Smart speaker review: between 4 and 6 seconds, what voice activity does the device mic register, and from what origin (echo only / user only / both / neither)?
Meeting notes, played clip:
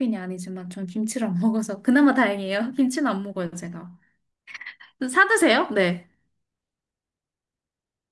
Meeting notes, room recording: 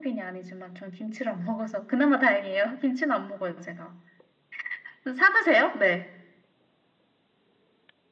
echo only